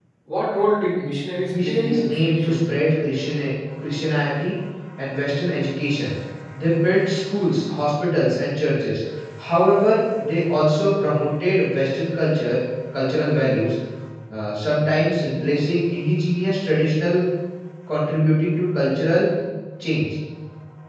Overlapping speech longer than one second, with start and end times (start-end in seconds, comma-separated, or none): 1.6-2.8